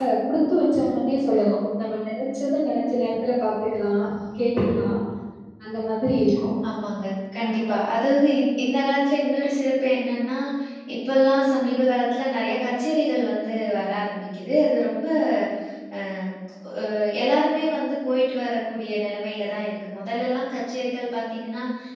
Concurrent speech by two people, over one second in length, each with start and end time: none

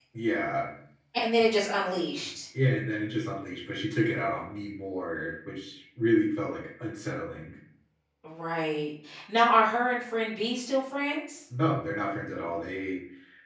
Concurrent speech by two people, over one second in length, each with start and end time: none

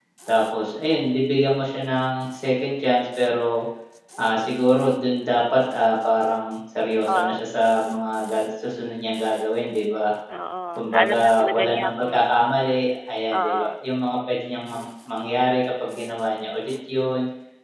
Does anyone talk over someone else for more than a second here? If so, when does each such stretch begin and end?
10.8-12.1

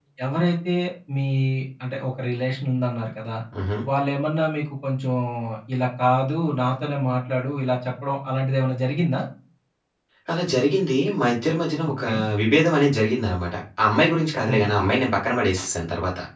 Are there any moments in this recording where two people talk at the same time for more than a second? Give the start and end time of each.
none

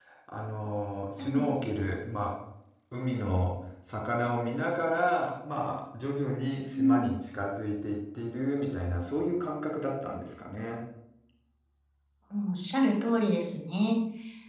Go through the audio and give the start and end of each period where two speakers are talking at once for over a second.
none

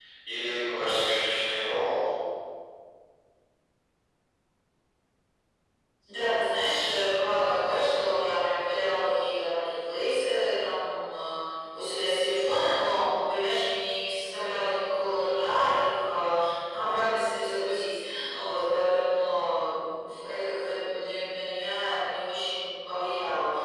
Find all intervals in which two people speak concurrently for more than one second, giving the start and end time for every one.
none

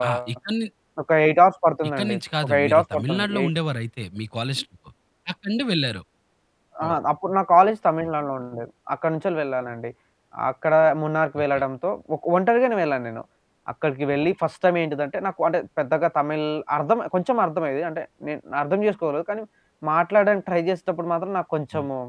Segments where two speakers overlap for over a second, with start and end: 2.0-3.5

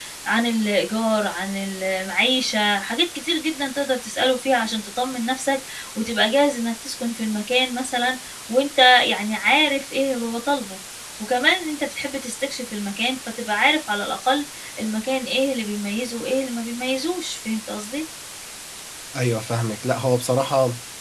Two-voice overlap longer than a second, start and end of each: none

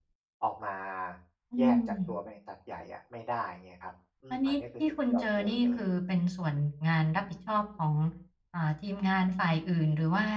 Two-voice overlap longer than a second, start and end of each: 4.3-5.8

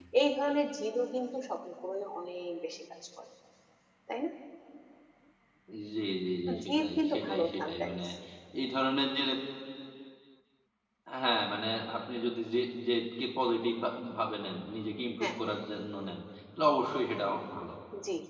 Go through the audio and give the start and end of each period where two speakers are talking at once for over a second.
6.5-8.0

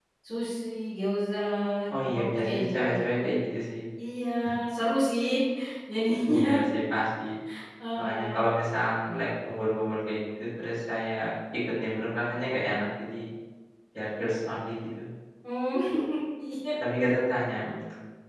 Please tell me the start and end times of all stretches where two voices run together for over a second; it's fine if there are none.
2.1-3.4

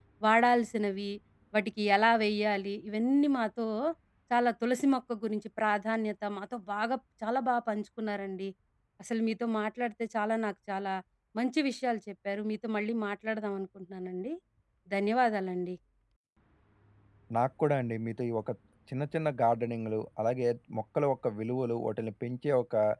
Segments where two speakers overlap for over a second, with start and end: none

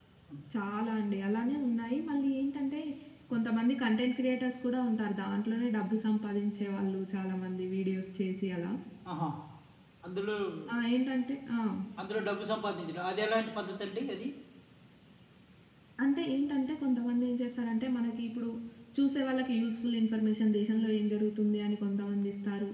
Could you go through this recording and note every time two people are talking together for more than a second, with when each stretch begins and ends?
none

